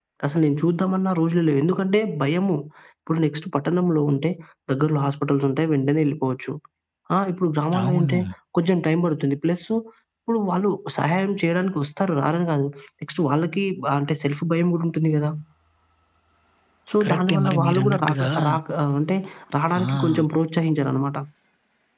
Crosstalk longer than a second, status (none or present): present